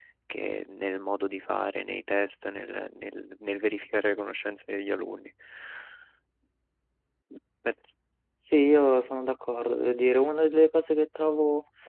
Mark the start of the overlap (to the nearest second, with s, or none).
none